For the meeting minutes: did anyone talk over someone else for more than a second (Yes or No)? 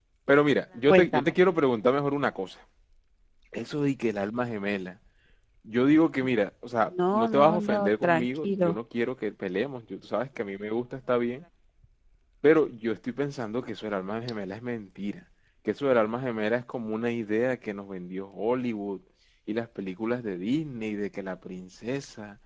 Yes